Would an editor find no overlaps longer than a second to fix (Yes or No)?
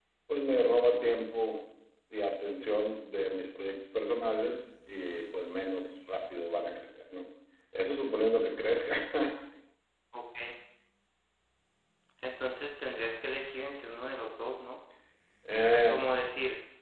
Yes